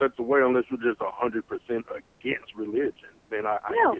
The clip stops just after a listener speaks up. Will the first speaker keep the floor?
No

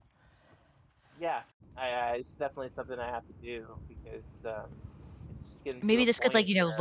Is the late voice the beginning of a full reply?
Yes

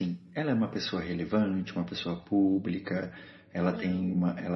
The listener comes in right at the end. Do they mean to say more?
No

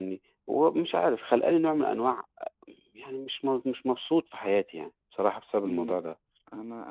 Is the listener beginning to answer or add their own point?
Yes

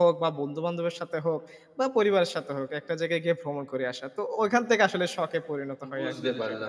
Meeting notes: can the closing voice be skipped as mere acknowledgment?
No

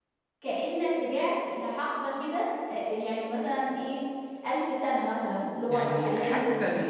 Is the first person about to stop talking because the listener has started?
Yes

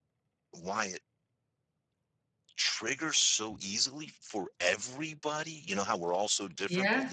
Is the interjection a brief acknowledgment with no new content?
Yes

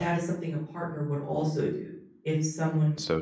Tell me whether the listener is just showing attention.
Yes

